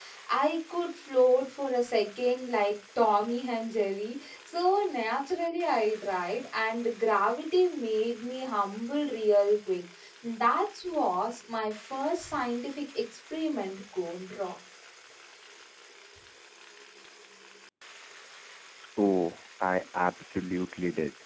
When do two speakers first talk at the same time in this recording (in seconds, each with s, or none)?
none